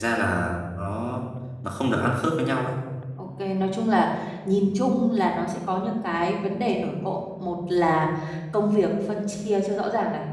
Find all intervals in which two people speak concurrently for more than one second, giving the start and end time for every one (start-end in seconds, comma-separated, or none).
none